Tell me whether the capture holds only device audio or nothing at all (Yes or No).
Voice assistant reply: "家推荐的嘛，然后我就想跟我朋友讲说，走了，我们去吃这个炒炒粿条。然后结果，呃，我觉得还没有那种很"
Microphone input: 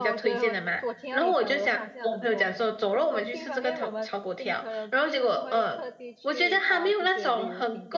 No